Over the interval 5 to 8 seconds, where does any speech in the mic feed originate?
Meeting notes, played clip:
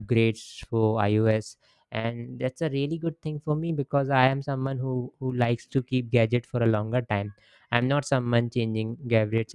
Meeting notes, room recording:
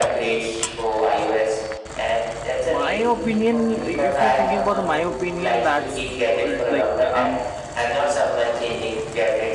both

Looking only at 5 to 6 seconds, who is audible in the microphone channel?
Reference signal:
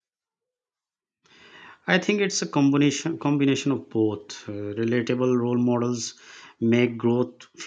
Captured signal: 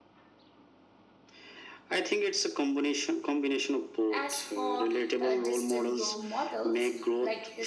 both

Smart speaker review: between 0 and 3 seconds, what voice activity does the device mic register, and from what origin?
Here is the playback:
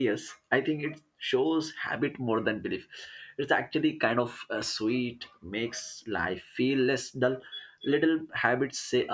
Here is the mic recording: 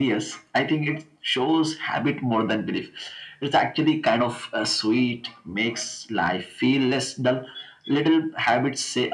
echo only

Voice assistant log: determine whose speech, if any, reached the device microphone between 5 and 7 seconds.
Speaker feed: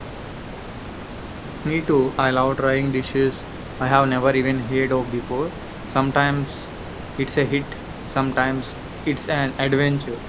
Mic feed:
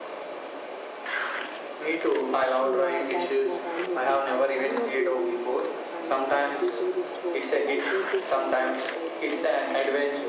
both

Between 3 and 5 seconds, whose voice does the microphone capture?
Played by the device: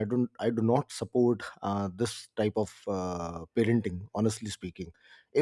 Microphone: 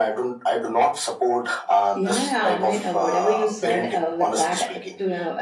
both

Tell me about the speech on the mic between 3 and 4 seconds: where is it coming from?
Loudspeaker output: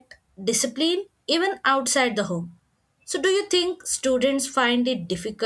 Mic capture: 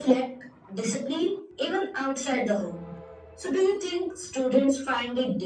echo only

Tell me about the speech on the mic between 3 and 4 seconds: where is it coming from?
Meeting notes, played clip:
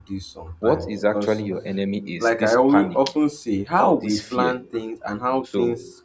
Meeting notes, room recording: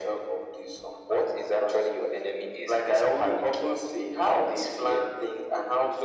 echo only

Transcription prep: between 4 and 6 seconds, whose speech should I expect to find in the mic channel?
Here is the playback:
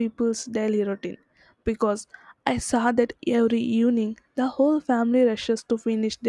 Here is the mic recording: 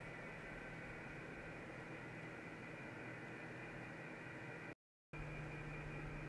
neither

